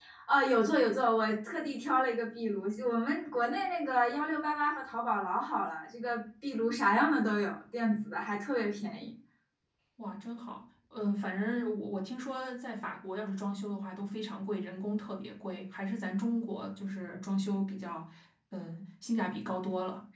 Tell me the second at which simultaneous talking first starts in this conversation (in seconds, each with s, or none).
none